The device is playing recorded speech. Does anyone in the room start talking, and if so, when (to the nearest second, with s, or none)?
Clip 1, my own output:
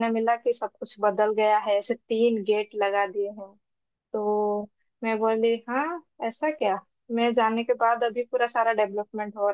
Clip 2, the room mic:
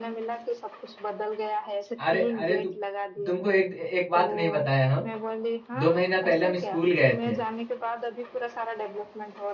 2 s